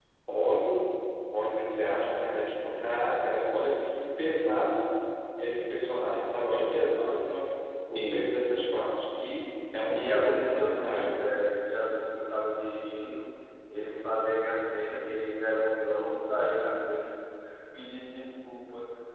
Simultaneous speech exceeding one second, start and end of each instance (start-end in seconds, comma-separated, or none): 9.9-11.2